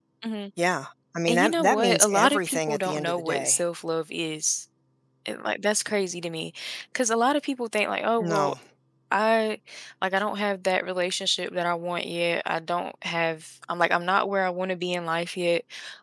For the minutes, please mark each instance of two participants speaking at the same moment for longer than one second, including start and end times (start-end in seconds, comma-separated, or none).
1.3-3.6